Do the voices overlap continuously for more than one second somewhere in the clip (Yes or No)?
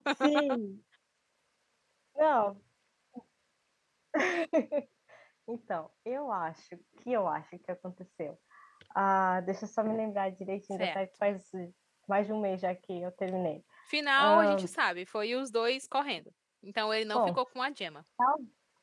No